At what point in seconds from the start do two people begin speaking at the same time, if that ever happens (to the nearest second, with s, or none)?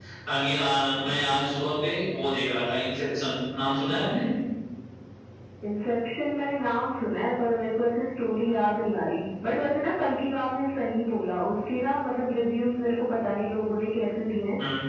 none